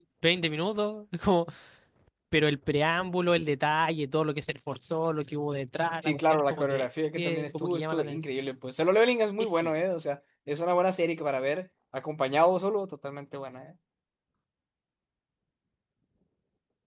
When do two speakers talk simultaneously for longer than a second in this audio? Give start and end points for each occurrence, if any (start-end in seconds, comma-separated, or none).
6.0-8.2